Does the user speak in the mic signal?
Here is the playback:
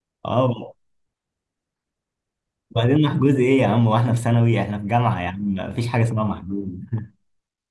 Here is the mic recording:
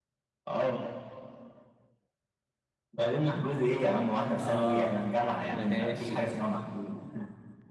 Yes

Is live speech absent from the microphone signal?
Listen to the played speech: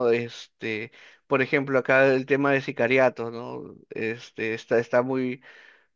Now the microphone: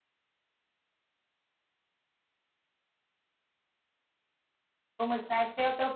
No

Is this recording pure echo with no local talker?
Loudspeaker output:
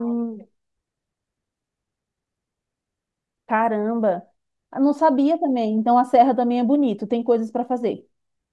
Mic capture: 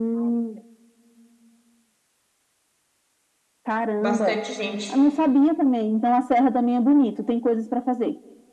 No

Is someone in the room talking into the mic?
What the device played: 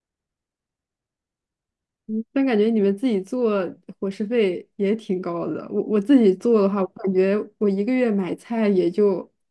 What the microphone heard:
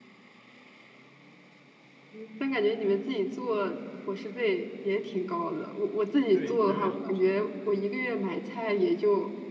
Yes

